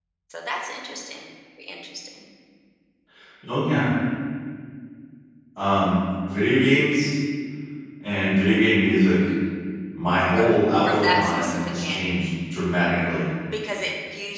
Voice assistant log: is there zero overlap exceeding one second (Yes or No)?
No